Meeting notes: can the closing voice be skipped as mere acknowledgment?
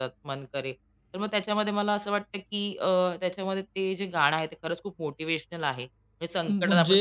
Yes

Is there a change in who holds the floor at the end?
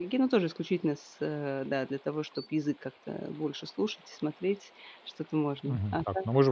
Yes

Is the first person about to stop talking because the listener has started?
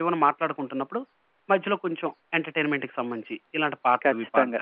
Yes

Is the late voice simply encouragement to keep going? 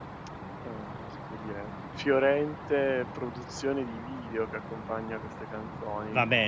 No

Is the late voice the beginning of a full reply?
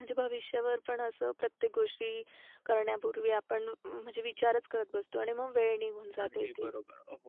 Yes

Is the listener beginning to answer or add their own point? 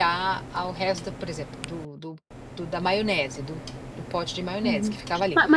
Yes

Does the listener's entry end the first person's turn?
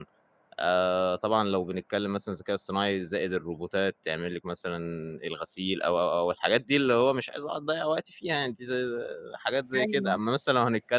No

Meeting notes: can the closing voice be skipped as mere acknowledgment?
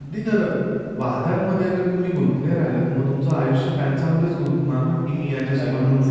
Yes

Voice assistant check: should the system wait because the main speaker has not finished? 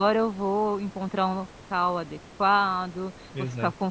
Yes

